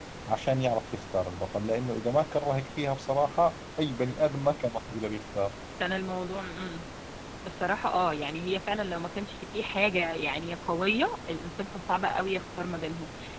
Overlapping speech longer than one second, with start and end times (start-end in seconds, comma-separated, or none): none